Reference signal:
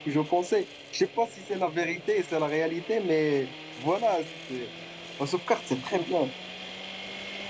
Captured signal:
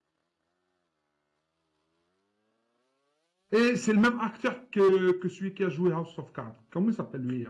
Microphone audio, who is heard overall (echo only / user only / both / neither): user only